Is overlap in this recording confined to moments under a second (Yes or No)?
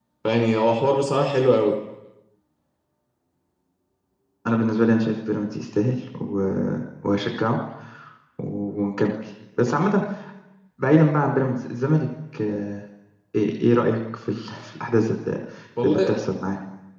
Yes